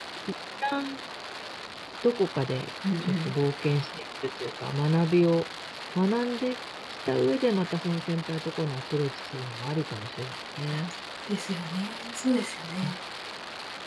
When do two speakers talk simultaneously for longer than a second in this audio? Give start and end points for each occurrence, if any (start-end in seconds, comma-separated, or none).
none